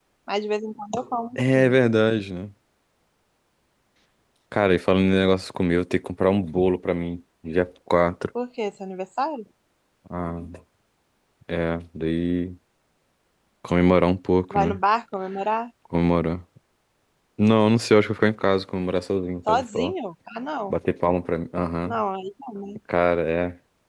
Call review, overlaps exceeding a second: none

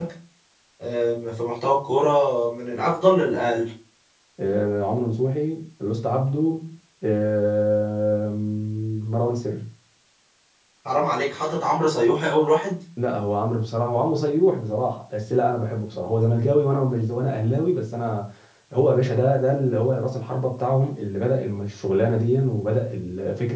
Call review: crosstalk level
none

